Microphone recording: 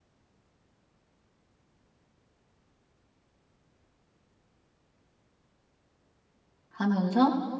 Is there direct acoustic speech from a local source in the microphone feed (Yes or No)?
Yes